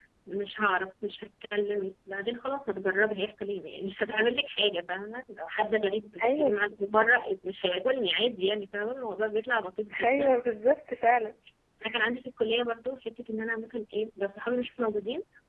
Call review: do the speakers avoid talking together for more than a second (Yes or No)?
Yes